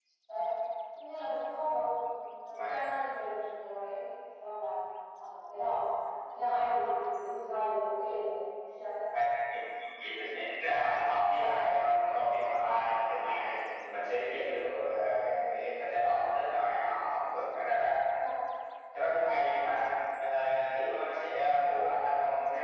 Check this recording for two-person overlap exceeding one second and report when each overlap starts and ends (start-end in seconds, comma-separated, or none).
none